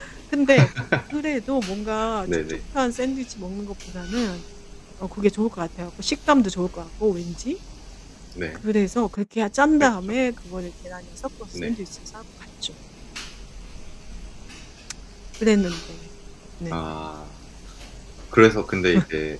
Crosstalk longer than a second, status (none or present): none